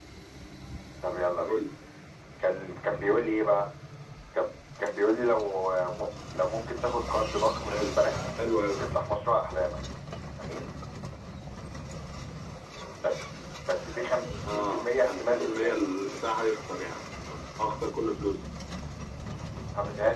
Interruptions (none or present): present